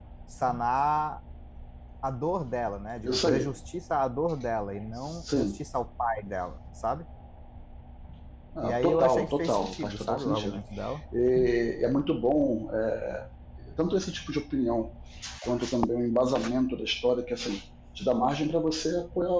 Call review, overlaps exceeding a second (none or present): present